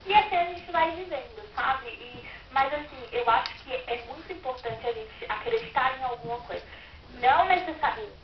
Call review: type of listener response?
listening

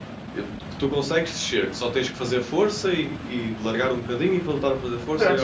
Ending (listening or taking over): taking over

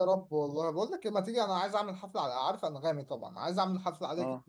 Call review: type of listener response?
listening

